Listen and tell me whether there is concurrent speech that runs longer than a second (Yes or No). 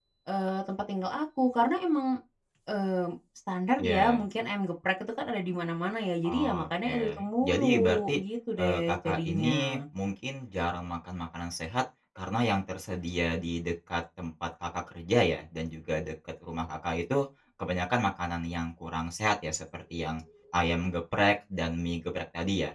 Yes